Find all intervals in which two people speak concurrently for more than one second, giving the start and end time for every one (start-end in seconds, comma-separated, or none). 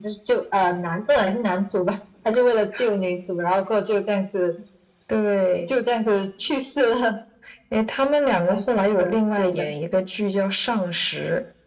8.5-9.7